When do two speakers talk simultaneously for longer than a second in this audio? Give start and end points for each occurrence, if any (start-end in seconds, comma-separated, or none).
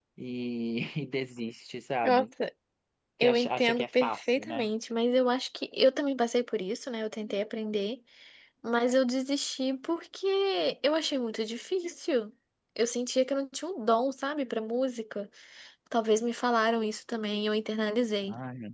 3.2-4.6